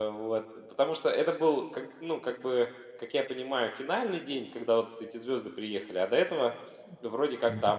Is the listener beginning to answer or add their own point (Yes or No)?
Yes